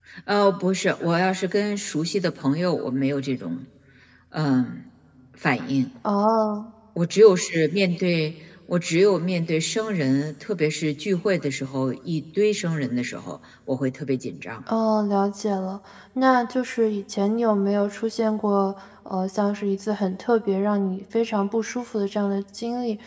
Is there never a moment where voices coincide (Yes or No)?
Yes